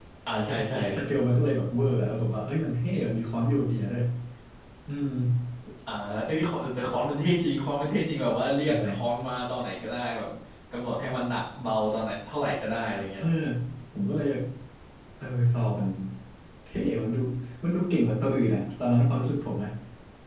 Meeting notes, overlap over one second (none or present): none